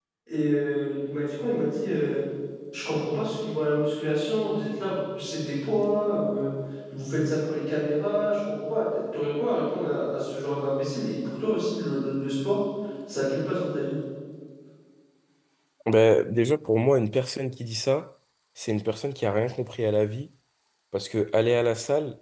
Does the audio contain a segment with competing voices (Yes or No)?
No